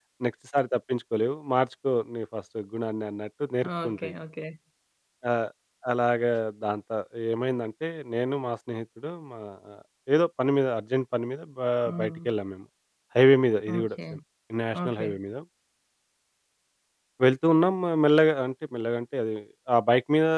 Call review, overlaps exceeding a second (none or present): none